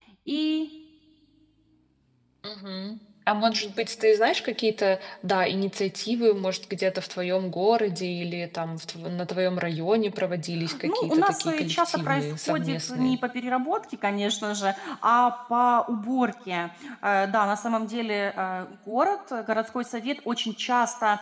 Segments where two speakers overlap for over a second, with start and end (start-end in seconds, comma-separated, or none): 10.8-13.2